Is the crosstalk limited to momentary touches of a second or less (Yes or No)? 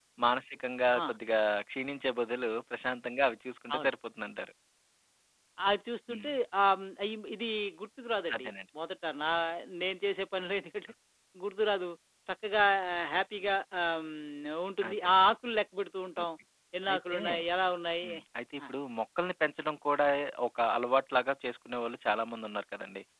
Yes